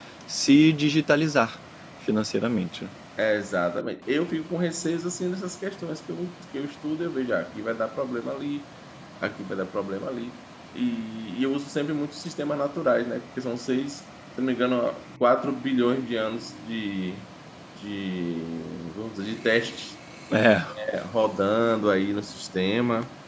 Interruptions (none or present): none